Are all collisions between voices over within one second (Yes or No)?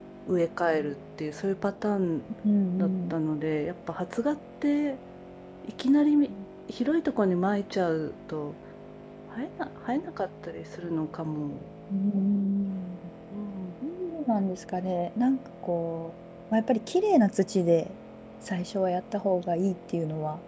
Yes